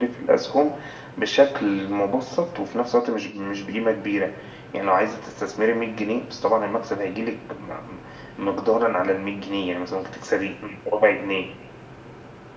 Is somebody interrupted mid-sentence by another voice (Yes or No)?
No